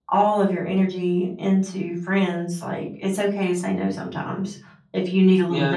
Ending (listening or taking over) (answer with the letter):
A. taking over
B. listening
A